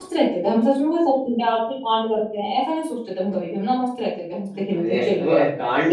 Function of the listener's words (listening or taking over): taking over